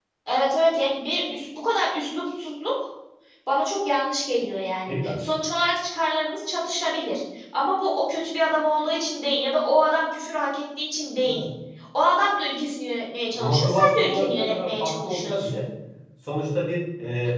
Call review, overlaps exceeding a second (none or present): present